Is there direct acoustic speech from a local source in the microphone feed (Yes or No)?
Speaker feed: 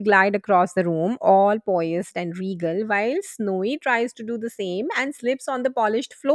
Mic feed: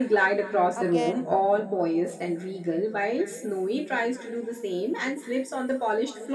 Yes